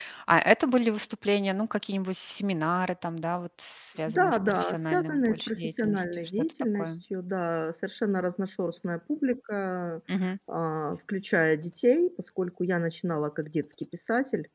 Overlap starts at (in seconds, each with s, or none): 4.1 s